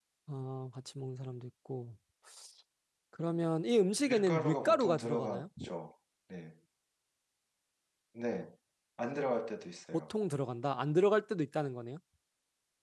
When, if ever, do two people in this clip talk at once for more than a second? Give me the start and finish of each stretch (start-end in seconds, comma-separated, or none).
4.1-5.5